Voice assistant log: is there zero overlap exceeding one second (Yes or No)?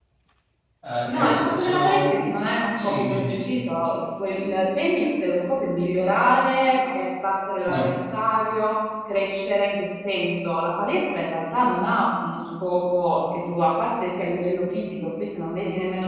No